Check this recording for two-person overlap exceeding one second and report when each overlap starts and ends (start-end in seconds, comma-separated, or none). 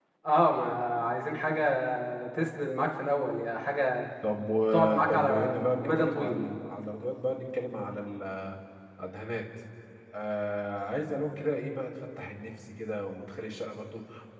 4.7-6.4